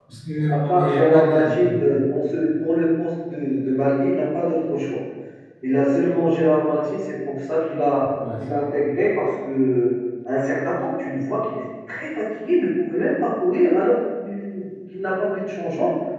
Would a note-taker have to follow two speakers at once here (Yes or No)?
Yes